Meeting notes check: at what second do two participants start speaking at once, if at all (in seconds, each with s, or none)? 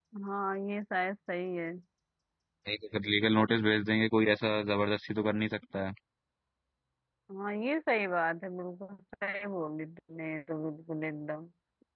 none